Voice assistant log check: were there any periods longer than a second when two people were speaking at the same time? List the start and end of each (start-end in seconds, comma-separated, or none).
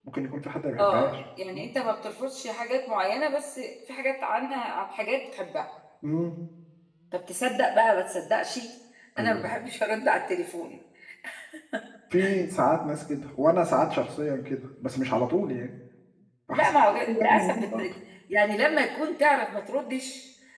16.5-17.9